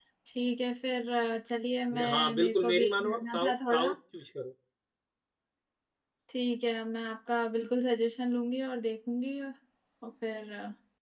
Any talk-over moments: Yes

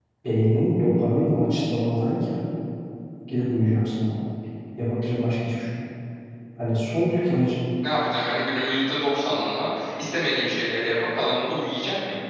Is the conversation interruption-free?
Yes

